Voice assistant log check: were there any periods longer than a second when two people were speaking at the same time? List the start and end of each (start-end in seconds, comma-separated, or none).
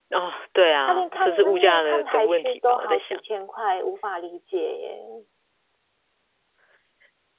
0.8-3.2